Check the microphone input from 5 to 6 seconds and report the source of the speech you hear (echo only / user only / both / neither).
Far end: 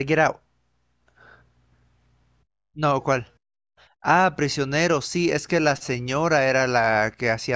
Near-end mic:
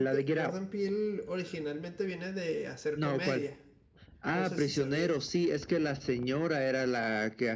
both